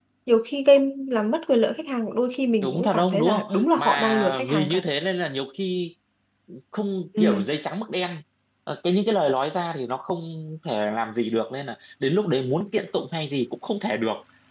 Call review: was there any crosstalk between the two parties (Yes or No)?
Yes